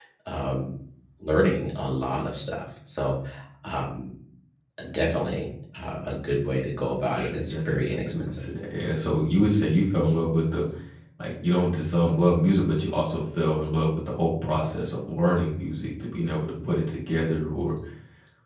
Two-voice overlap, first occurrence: 7.1 s

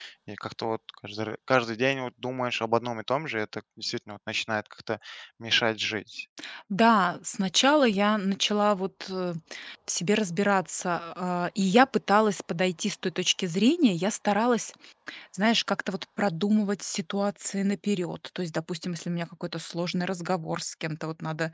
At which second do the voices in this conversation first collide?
none

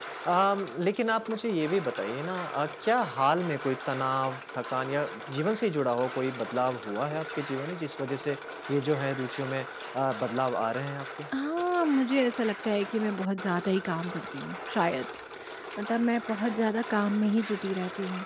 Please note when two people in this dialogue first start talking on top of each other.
none

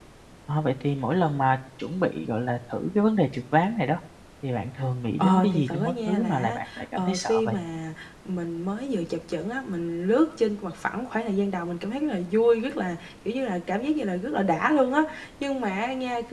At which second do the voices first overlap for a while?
5.2 s

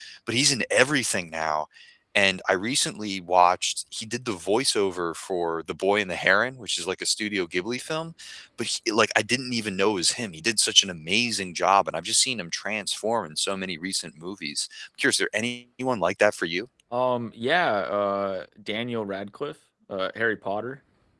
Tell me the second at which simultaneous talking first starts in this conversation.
none

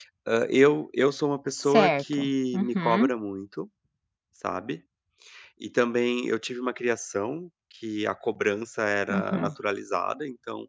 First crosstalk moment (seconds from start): 1.6 s

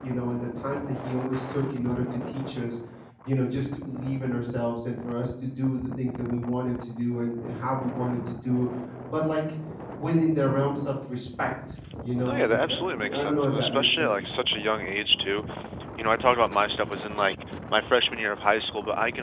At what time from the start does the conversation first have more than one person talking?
12.2 s

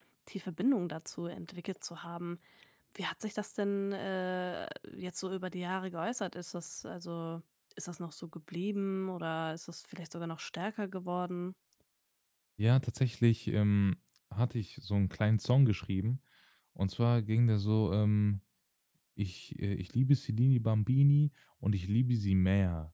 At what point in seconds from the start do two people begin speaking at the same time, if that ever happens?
none

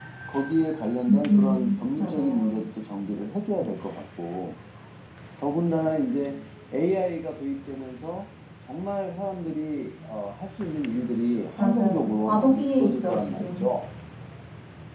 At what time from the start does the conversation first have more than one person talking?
1.1 s

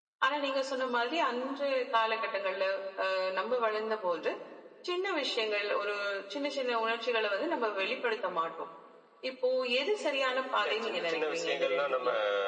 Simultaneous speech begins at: 10.6 s

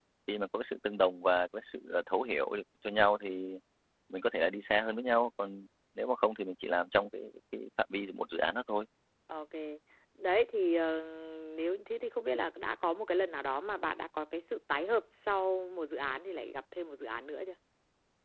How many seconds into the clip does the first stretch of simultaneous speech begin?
none

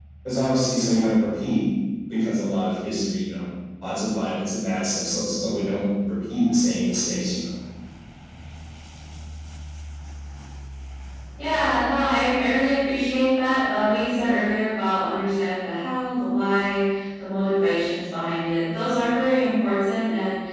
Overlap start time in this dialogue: none

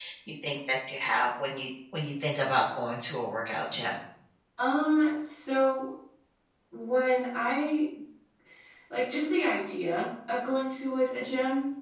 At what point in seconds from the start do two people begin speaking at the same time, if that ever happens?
none

